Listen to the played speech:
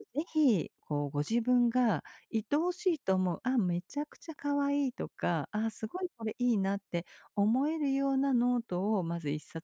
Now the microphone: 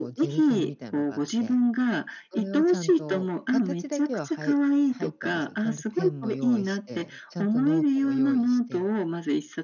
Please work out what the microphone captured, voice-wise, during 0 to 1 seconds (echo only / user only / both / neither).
both